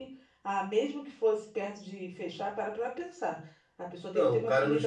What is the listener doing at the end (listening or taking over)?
taking over